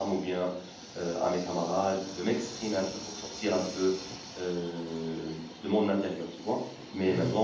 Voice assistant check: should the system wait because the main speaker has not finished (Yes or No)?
Yes